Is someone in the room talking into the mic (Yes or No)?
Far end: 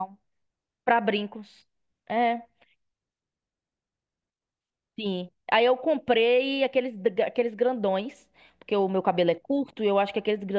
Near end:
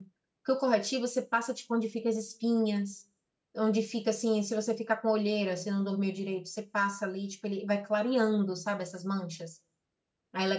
Yes